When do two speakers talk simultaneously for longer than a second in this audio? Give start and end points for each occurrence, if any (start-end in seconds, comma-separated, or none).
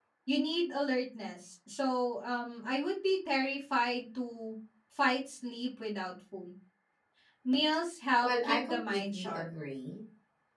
8.2-9.5